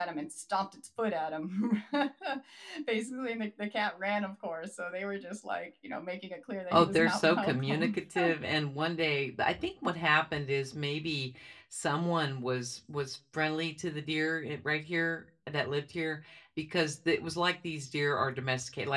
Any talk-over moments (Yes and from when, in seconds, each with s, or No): Yes, from 6.7 s